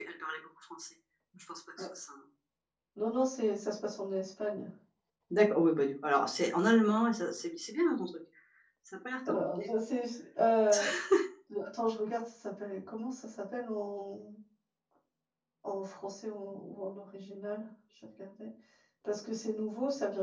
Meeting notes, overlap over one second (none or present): none